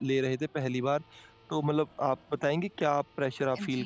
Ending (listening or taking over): taking over